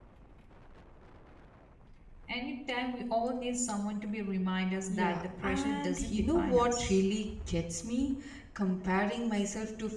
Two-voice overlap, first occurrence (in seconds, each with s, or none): 4.9 s